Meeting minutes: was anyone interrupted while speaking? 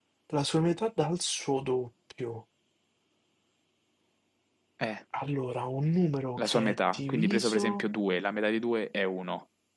Yes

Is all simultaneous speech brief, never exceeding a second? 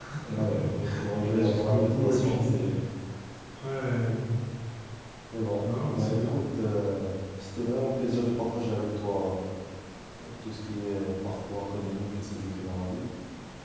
No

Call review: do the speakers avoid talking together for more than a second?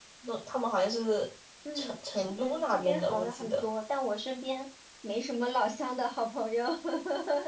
No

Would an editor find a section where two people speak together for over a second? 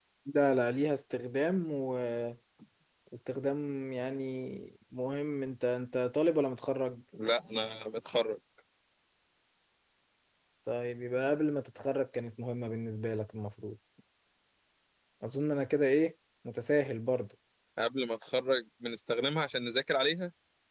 No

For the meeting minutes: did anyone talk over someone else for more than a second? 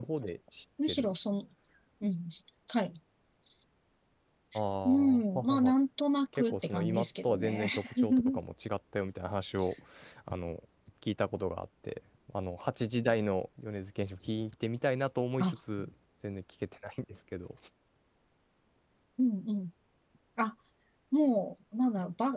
Yes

